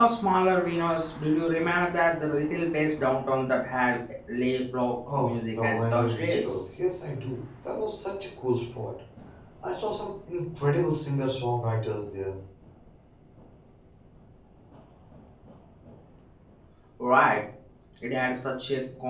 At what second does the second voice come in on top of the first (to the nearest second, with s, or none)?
5 s